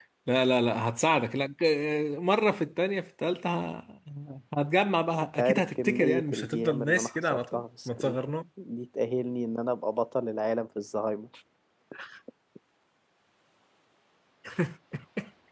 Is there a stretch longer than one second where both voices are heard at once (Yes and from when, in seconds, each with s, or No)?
Yes, from 5.3 s